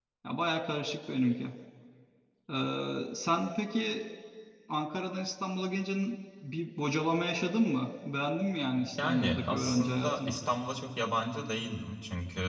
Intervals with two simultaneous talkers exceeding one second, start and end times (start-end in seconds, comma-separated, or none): 9.0-10.3